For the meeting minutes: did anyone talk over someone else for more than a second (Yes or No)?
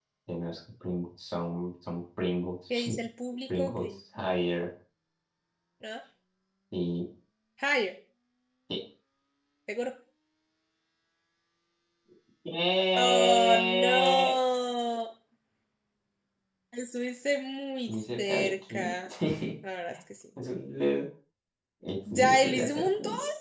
Yes